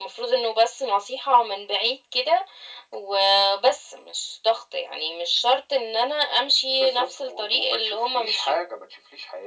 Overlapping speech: Yes, from 6.7 s

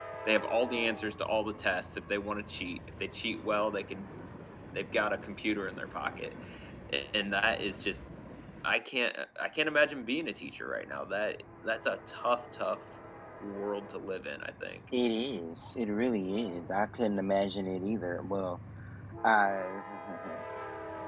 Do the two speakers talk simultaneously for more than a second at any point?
No

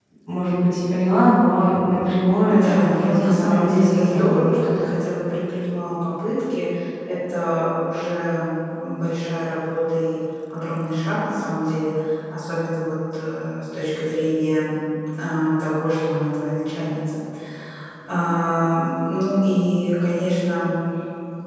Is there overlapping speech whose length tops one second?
Yes, from 2.4 s

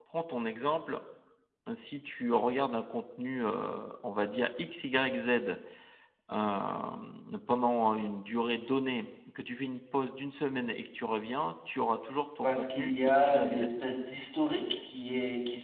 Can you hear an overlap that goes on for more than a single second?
Yes, from 12.4 s

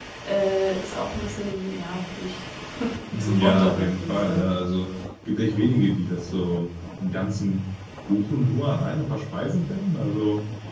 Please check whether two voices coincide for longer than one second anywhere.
Yes, from 3.1 s

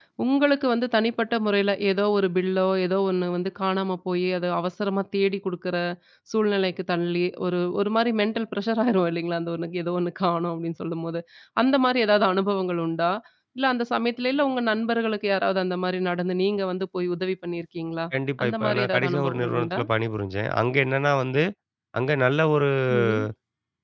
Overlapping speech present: Yes, from 18.4 s

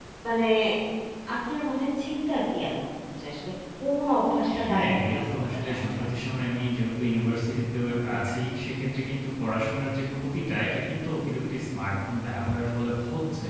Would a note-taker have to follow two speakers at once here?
Yes, from 4.5 s

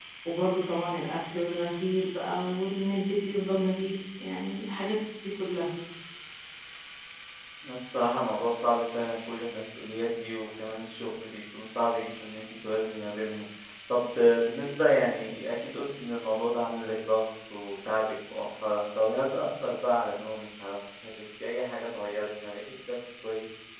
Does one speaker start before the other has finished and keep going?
No

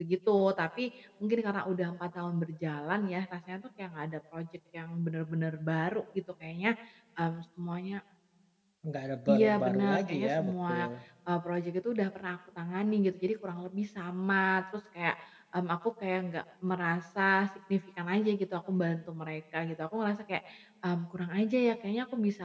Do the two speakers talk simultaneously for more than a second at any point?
Yes, from 9.3 s

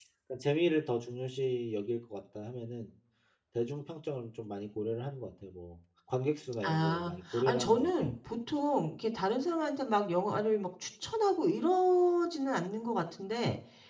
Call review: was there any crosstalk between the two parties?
Yes, from 6.6 s

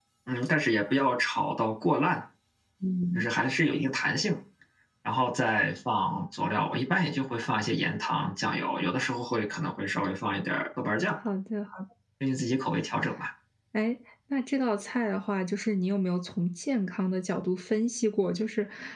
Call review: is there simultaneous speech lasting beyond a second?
No

